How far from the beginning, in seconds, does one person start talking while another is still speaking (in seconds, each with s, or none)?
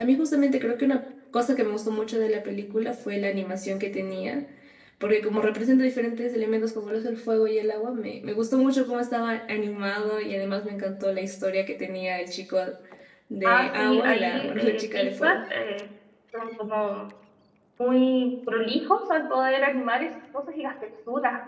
13.4 s